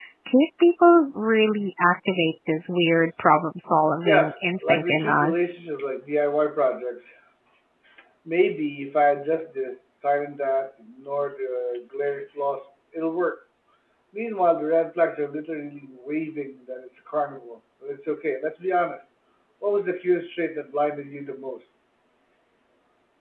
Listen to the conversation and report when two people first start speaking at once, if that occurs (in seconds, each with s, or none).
4.0 s